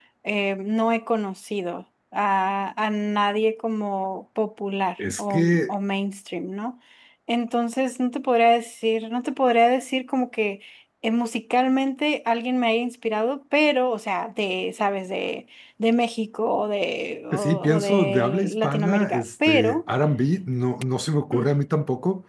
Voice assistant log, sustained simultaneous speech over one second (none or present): present